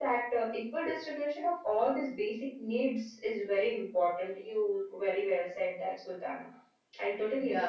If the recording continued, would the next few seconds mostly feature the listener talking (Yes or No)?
Yes